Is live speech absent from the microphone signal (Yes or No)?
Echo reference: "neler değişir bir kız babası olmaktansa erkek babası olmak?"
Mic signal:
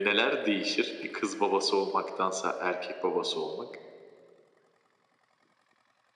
Yes